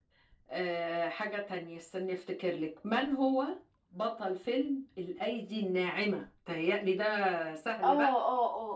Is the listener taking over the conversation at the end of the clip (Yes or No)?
Yes